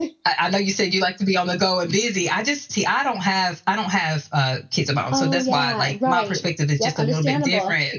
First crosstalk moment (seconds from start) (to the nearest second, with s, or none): 5 s